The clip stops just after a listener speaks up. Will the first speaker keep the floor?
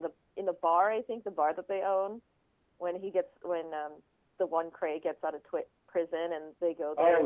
No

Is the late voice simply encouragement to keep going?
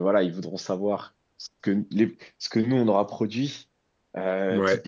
Yes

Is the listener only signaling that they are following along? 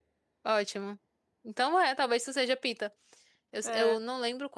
Yes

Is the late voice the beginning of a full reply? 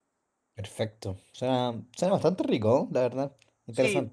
Yes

